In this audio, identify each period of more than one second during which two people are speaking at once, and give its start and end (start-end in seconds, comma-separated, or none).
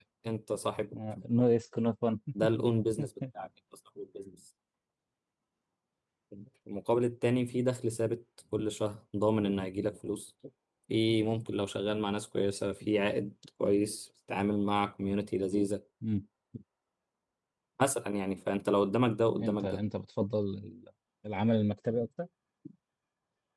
none